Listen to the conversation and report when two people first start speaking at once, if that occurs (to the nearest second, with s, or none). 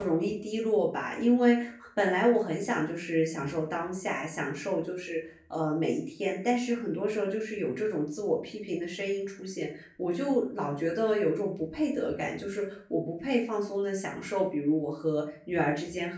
none